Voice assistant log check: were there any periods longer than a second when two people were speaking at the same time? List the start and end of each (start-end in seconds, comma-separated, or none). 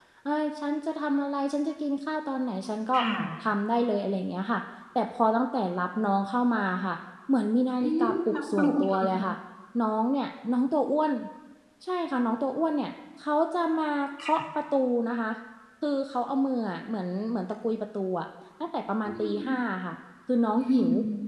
7.8-9.1